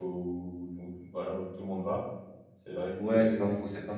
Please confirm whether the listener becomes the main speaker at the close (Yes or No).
Yes